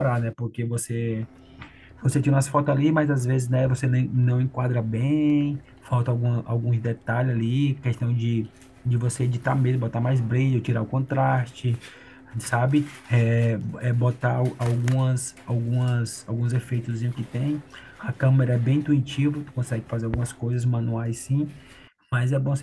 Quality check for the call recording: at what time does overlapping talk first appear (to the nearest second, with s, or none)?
none